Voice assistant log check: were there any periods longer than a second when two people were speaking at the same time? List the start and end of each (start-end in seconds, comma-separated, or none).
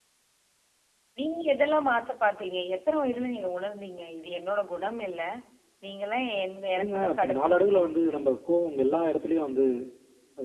6.8-8.3